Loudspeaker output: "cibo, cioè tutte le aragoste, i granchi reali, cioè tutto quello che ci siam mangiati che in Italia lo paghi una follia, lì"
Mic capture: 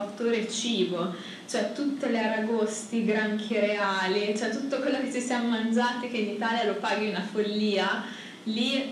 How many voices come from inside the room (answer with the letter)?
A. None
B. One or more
A